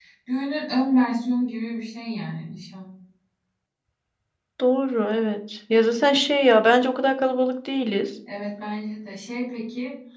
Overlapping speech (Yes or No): No